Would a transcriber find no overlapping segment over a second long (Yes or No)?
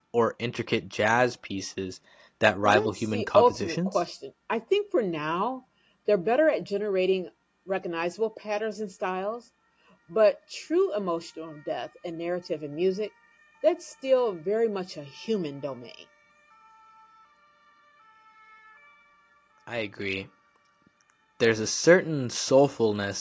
No